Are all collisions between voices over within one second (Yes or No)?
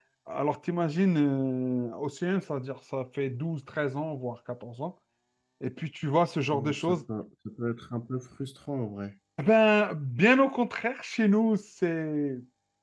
Yes